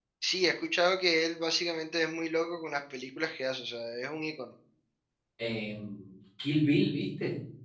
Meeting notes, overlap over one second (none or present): none